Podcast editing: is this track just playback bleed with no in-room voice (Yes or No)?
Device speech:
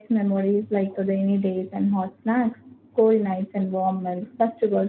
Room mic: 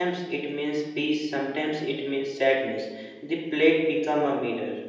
No